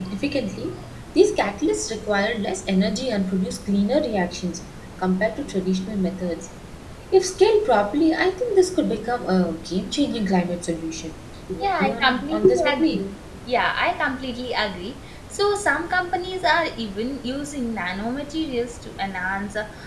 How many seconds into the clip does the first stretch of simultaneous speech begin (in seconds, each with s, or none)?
11.6 s